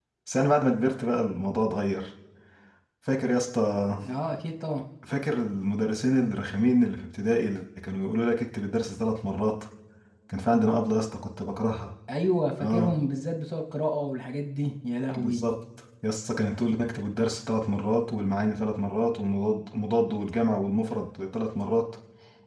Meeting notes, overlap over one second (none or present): none